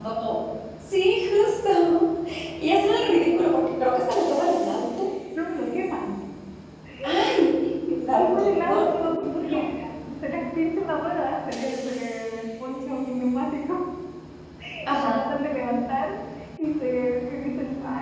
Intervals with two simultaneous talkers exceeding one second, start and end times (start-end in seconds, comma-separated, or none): 8.2-9.6